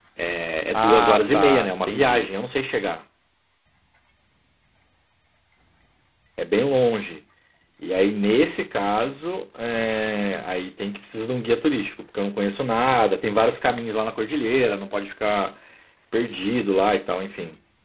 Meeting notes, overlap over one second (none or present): present